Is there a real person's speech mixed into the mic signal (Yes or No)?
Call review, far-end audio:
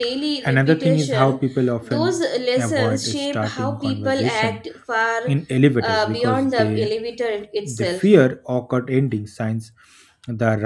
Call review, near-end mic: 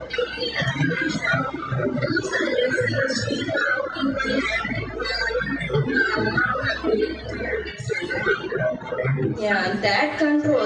Yes